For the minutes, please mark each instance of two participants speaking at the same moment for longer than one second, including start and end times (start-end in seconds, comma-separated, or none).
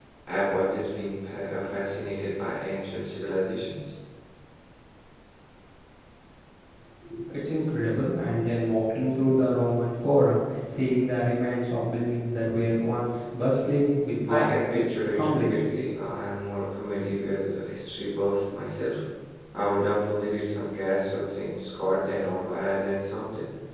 14.3-15.6